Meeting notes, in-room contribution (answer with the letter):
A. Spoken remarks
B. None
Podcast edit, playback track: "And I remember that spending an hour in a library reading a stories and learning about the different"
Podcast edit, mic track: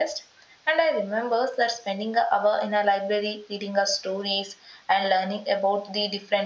B